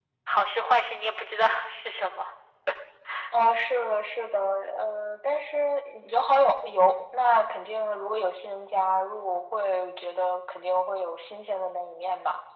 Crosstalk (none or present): none